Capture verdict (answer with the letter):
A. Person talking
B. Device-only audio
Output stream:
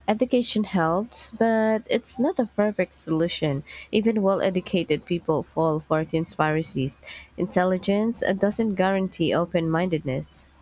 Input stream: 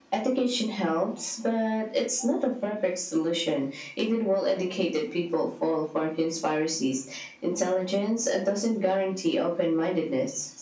B